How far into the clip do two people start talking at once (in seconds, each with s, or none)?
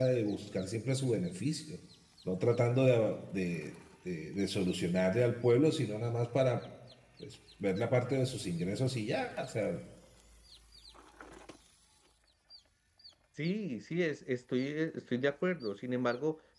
none